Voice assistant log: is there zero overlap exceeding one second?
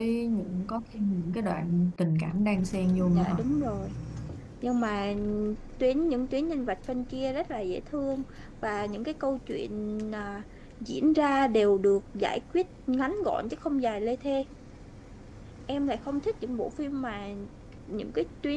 Yes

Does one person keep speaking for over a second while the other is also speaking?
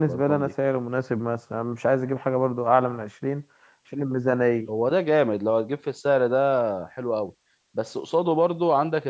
No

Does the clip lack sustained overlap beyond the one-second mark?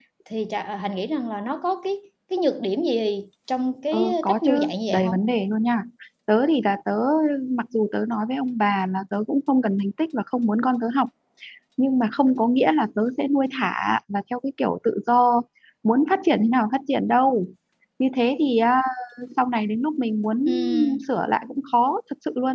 No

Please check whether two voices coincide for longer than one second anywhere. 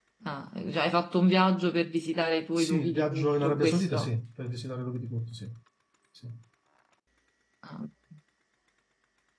Yes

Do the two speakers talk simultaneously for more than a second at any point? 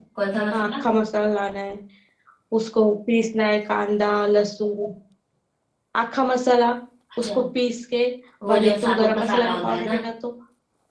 Yes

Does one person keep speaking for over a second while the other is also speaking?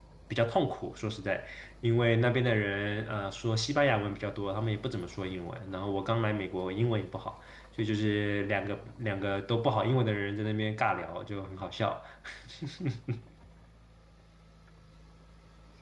No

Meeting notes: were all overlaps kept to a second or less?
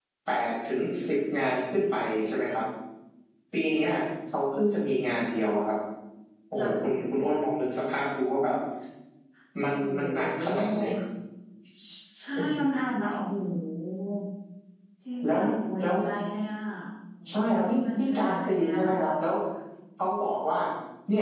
No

